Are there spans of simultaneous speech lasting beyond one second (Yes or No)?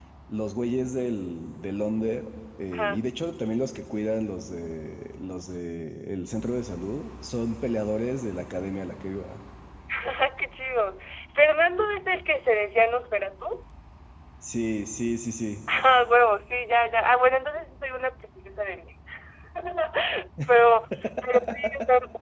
No